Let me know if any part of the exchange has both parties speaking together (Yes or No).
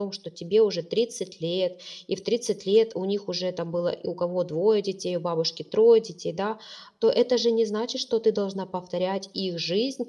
No